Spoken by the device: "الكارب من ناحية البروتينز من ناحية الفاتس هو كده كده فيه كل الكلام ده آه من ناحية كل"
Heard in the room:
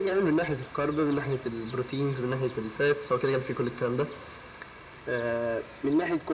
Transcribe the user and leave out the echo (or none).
none